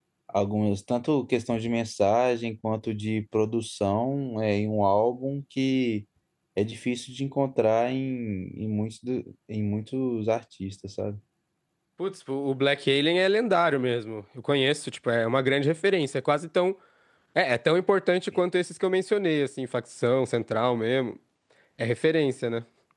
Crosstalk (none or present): none